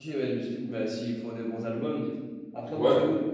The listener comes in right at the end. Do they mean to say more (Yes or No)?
No